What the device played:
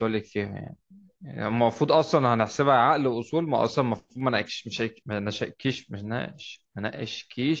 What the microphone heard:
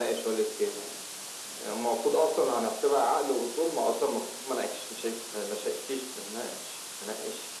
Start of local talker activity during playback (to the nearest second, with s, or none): none